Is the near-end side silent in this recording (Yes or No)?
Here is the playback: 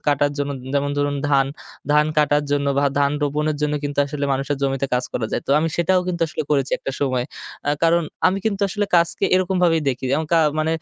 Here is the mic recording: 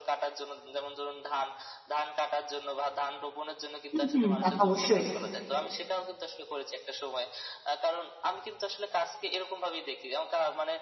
No